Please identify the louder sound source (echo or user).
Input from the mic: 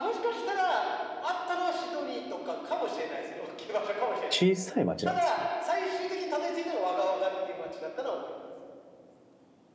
user